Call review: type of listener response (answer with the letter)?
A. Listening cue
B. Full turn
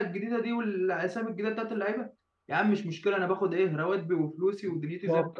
B